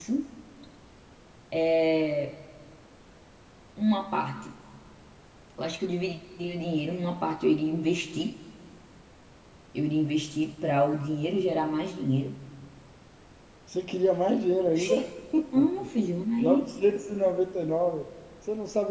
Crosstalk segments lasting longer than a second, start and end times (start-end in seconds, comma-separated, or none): none